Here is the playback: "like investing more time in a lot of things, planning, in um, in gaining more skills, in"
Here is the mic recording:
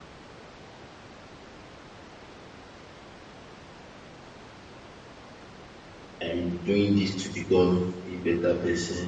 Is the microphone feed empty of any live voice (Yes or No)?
No